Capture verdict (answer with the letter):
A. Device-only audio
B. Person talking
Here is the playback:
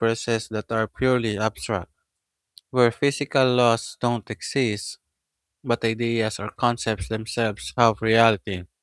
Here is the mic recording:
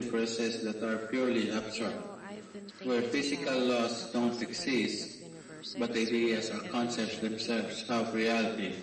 B